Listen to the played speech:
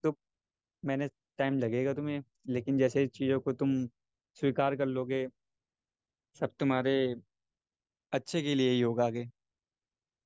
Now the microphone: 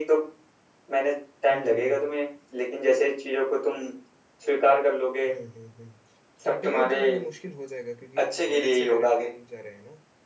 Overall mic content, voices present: both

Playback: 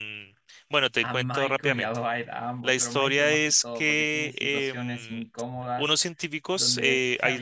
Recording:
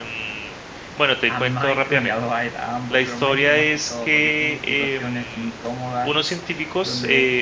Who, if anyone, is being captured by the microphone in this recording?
echo only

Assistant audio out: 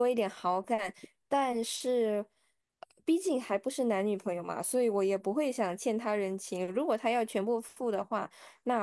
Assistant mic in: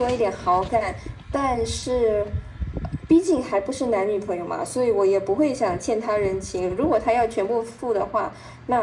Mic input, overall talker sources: echo only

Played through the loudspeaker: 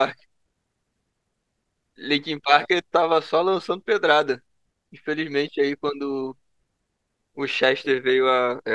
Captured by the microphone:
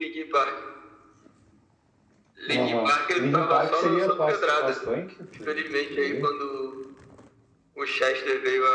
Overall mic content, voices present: both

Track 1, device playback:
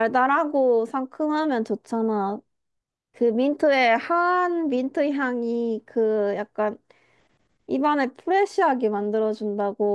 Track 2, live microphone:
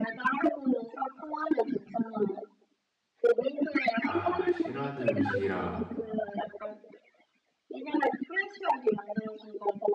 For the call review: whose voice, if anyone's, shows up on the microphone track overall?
both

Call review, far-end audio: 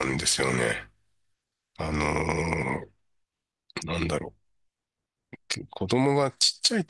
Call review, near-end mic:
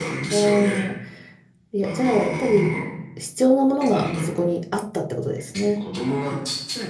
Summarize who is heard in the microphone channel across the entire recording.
both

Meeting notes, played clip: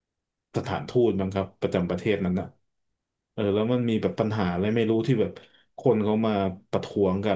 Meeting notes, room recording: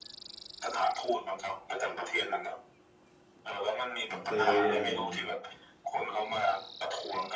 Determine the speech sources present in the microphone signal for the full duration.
both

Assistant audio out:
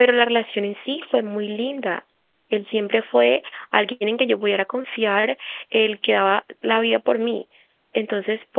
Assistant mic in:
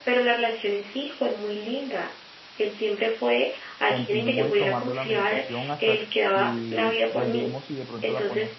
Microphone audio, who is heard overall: both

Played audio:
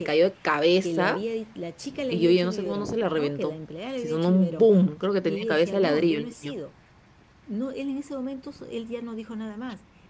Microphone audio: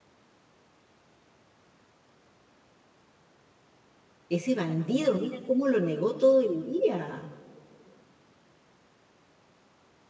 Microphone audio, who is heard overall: user only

